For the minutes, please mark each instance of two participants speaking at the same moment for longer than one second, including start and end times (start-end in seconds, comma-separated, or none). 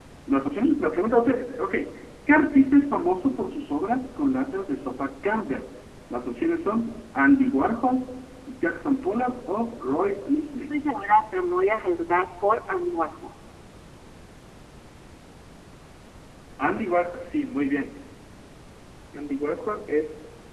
none